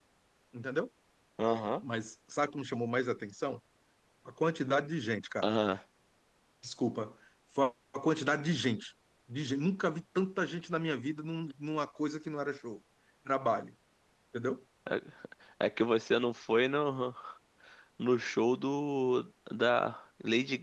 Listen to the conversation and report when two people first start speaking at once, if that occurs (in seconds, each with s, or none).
none